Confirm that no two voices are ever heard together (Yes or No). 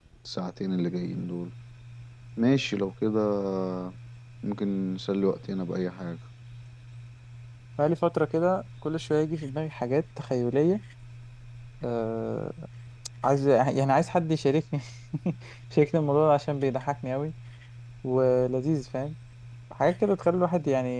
Yes